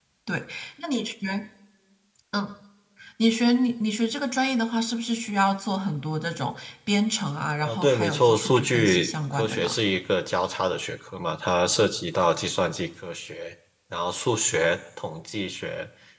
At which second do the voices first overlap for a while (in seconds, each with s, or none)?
7.6 s